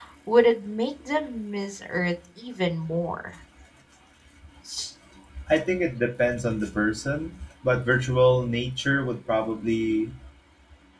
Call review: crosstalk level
none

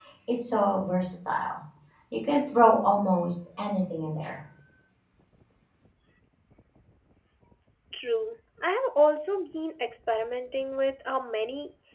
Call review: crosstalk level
none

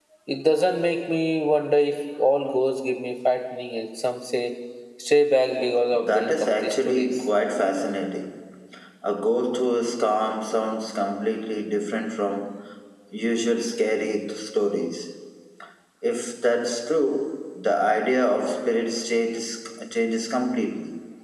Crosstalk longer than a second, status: present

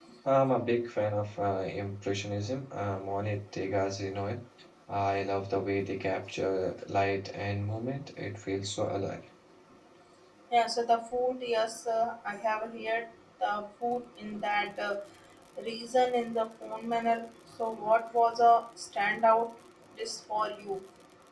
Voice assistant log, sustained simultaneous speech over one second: none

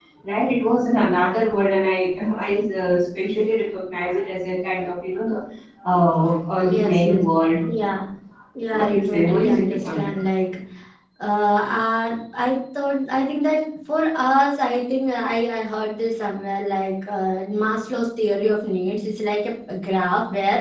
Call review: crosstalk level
present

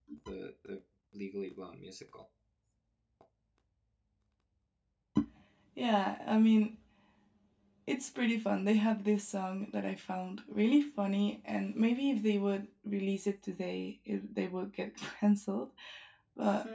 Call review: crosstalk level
none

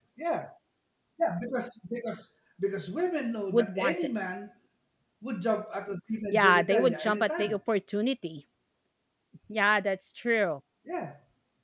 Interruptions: present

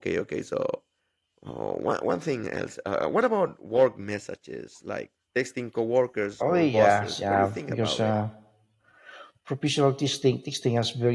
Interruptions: present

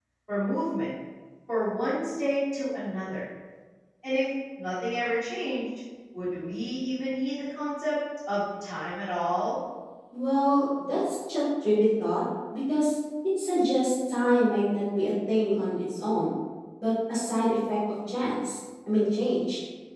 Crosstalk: none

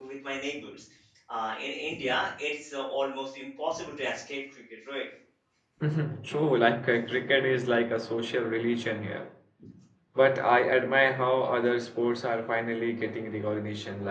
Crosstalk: none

